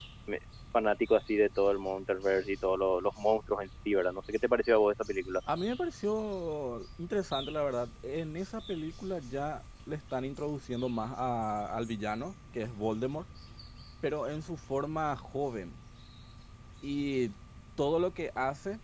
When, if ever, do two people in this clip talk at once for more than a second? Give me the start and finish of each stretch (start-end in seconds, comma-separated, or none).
none